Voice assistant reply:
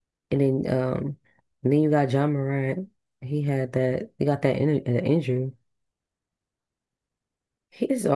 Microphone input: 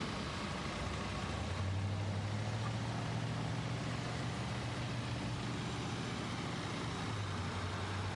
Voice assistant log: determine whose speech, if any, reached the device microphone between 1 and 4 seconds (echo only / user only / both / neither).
neither